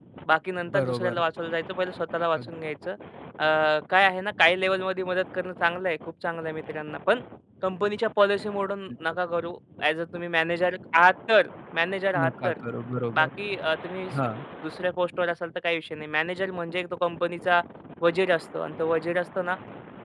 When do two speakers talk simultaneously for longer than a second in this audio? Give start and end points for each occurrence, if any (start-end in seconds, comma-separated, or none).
none